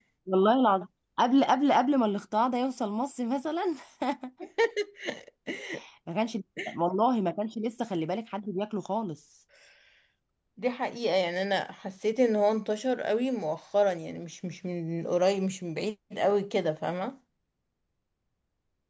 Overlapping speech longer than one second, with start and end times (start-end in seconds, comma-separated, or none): none